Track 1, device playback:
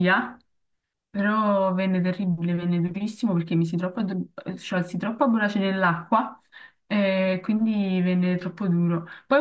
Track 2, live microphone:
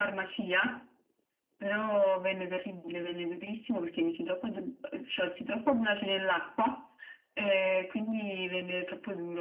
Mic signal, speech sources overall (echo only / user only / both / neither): echo only